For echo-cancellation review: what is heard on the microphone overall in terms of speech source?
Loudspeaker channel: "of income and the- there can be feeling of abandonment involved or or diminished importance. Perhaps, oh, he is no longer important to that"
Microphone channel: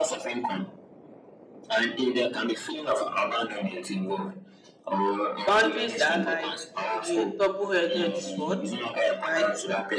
both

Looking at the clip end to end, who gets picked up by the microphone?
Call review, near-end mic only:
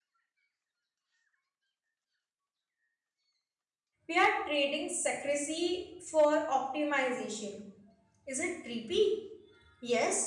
user only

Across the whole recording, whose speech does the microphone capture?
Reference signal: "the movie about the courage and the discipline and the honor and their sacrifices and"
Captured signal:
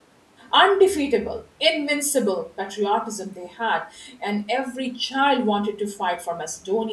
user only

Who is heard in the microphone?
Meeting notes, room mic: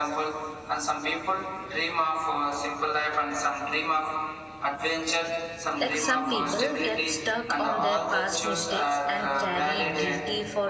both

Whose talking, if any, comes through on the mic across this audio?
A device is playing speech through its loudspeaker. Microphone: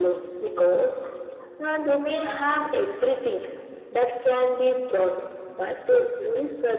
both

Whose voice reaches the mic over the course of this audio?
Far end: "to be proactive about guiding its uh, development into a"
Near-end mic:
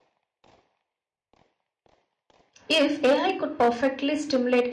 user only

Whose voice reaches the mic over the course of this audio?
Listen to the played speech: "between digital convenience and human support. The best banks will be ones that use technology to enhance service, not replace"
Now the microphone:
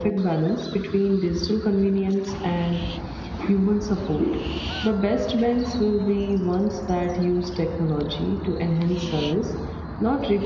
echo only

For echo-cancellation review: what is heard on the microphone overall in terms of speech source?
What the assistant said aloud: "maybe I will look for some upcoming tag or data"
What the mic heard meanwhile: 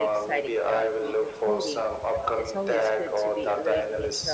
both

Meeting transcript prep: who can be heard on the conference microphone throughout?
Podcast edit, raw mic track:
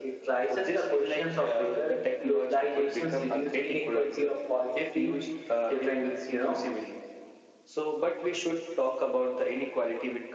echo only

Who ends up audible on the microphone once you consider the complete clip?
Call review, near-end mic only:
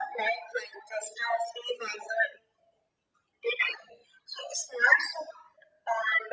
echo only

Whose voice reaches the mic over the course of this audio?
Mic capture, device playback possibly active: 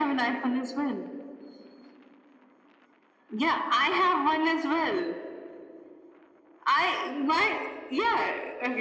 echo only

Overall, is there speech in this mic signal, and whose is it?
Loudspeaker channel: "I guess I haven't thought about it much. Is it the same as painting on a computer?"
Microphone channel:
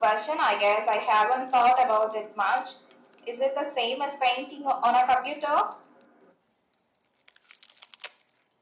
echo only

